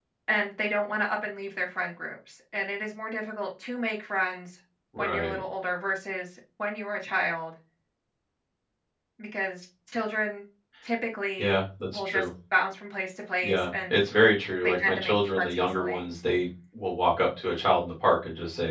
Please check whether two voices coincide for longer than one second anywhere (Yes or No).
Yes